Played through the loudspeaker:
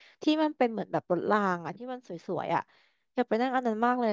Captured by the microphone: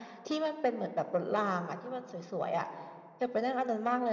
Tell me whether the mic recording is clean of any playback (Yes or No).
No